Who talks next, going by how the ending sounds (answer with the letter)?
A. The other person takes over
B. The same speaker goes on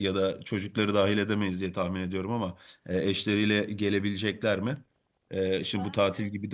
B